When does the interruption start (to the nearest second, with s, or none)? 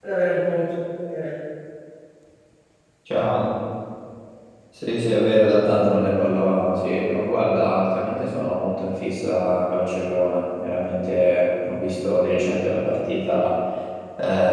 none